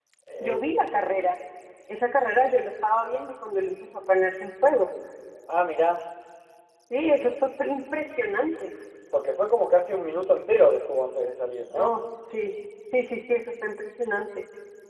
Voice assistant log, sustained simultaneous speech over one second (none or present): none